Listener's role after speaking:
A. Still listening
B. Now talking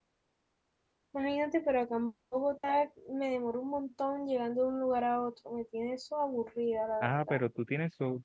B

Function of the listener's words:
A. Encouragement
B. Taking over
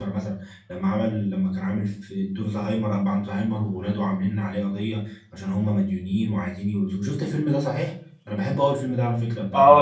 B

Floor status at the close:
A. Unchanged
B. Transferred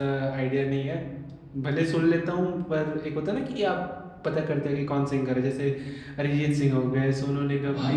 B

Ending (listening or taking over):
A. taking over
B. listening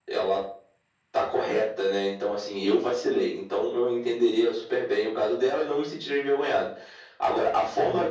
B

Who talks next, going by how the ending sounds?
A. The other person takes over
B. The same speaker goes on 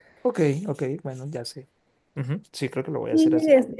A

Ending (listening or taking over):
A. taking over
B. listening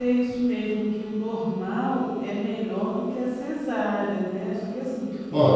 A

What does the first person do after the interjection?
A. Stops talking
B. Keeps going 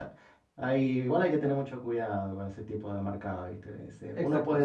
A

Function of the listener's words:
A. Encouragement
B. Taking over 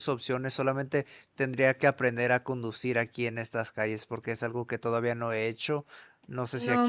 B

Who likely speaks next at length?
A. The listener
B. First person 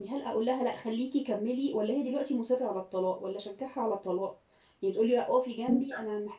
B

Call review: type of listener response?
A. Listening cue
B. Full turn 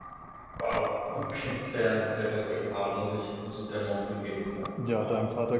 B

